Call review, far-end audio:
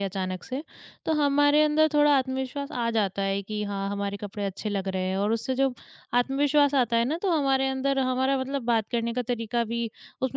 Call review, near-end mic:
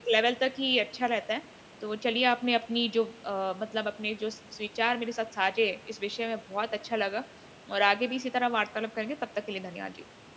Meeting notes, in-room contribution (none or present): present